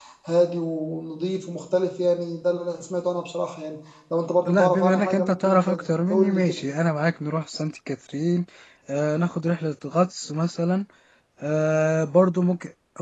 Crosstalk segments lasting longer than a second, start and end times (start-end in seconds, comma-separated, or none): 4.5-6.6